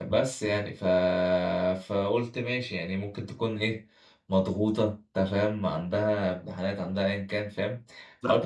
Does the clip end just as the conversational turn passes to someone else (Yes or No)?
Yes